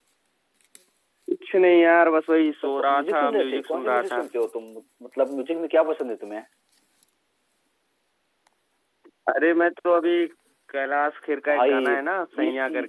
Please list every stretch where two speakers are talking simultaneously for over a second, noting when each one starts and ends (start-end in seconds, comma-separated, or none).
2.6-4.2